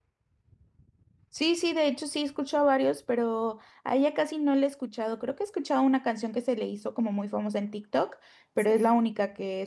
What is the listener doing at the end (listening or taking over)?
listening